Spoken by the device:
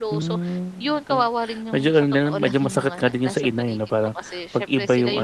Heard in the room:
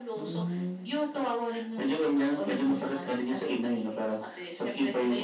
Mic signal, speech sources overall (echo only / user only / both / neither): echo only